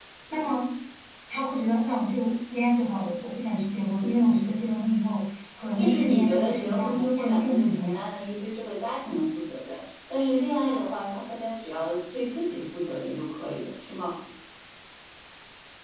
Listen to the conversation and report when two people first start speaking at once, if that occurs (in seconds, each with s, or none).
5.8 s